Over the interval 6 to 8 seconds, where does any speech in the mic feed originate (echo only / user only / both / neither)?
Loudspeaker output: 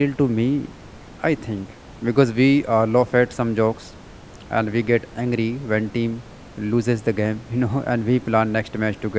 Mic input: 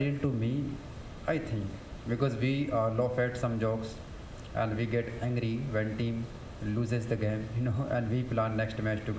echo only